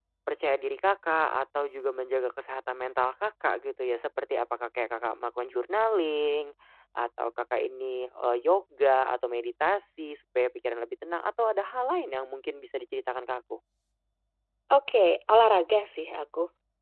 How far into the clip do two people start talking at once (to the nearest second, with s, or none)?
none